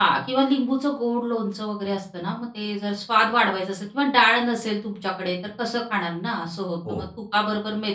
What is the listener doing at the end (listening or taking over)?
listening